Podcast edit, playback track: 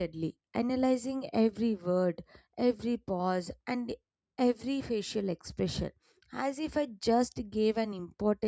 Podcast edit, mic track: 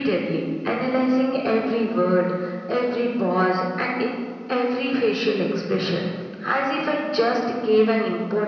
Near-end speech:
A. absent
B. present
A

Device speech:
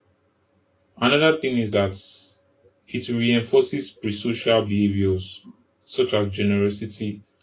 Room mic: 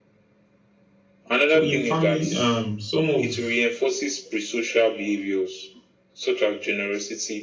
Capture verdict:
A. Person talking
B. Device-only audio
A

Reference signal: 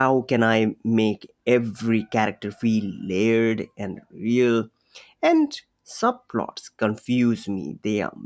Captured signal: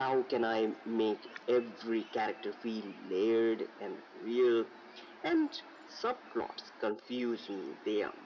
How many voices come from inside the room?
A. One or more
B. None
B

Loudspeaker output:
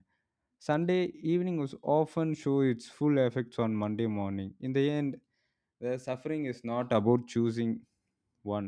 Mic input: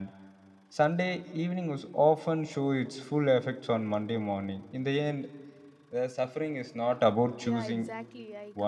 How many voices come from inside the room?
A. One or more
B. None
A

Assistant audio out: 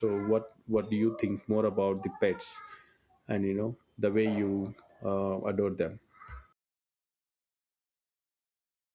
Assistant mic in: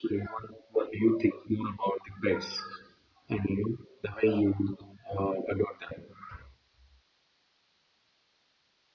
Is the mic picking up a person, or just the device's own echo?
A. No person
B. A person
A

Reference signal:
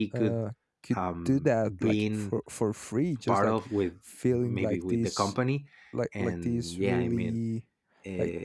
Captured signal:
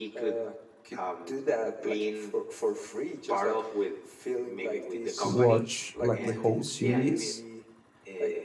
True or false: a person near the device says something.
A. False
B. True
B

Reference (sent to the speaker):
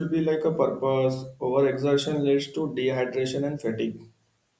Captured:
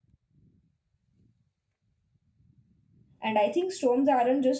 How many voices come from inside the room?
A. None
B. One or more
B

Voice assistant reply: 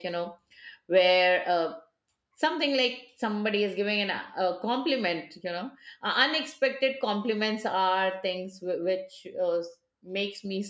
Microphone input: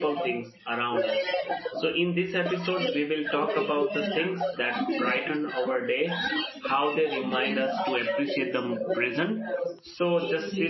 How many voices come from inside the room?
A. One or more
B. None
A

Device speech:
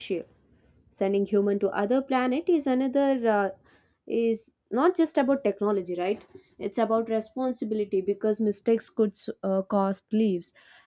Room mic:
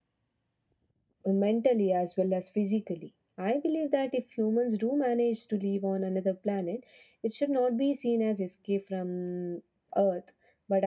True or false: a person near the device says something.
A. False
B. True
B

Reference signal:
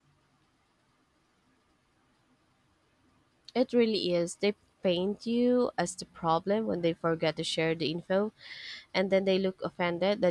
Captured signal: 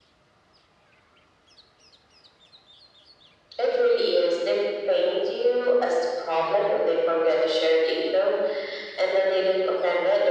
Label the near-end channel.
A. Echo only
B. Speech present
A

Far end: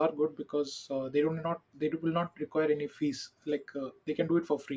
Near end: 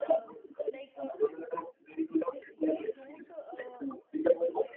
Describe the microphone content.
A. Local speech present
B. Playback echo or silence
A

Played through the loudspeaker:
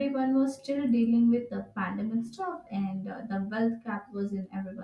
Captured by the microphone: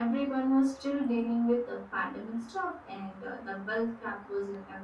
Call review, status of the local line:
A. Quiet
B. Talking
A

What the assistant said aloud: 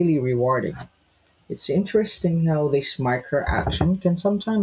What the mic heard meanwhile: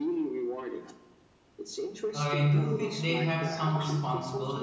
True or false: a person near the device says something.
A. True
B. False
A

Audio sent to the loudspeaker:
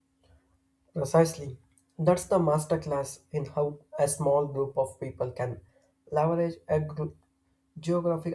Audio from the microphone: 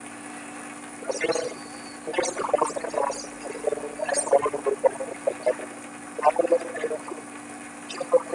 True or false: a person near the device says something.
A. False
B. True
A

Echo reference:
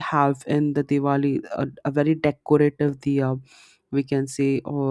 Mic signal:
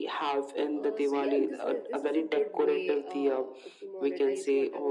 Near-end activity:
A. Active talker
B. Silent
A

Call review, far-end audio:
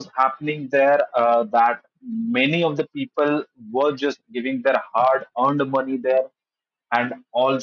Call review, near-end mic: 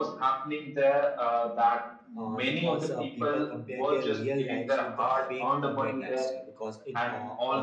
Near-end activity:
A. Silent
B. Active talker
B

